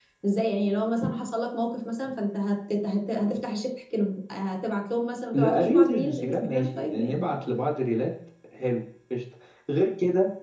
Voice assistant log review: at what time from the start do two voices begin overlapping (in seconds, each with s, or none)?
5.3 s